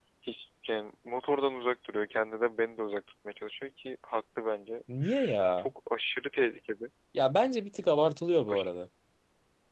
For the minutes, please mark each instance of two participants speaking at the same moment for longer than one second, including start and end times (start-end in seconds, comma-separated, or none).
none